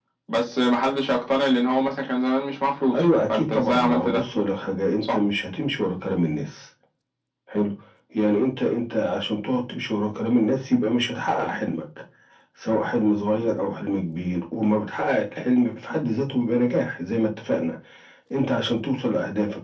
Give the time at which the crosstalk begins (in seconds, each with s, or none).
2.9 s